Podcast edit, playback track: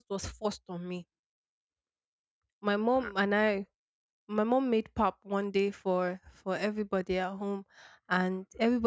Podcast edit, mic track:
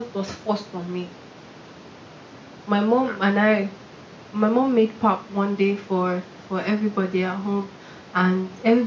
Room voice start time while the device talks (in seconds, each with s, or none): none